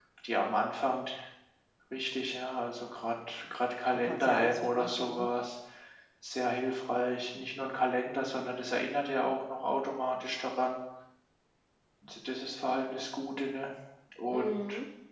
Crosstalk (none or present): present